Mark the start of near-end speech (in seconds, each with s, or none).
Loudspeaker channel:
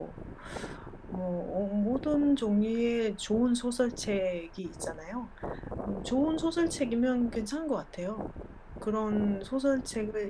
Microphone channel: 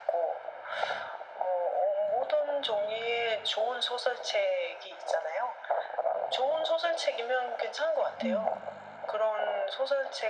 8.2 s